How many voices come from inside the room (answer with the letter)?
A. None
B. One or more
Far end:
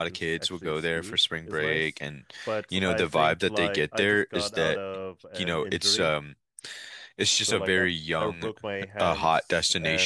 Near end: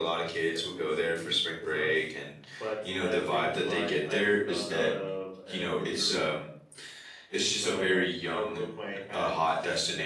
A